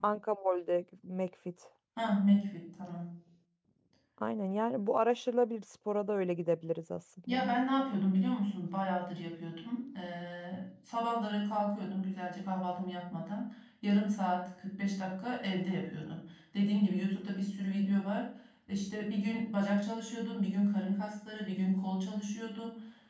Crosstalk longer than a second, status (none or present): none